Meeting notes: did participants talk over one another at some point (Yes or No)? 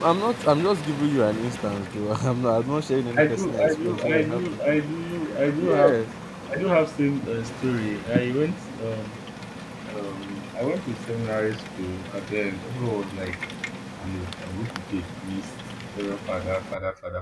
Yes